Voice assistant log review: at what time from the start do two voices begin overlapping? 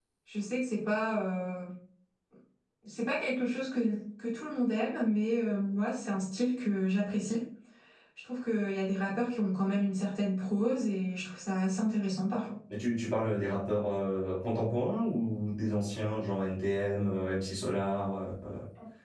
none

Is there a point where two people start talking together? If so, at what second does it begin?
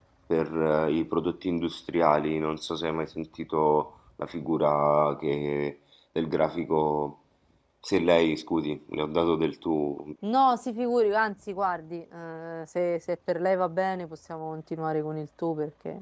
none

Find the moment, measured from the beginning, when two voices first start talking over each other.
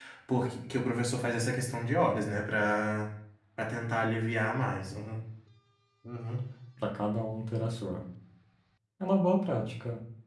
none

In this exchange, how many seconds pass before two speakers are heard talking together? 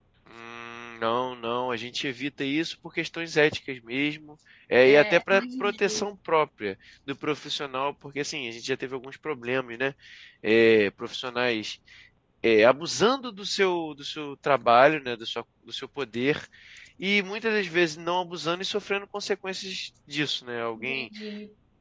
5 s

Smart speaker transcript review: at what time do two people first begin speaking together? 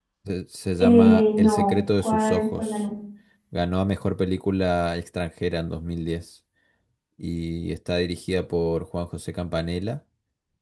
1 s

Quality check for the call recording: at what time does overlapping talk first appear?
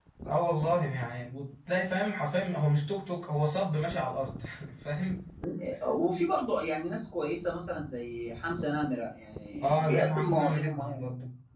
10 s

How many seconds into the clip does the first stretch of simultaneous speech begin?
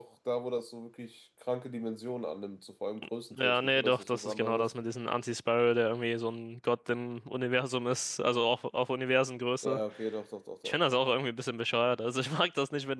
3 s

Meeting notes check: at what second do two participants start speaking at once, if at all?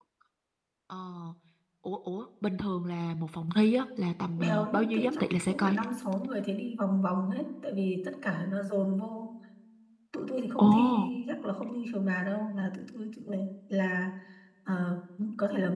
4 s

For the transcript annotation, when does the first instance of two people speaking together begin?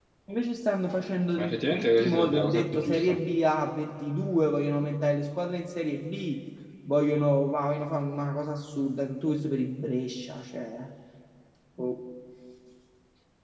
1 s

